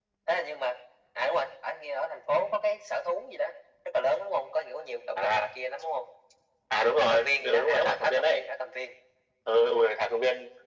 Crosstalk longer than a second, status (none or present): present